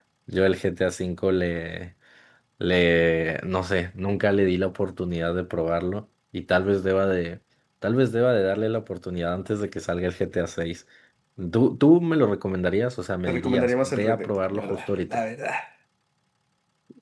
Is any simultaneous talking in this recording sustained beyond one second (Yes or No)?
Yes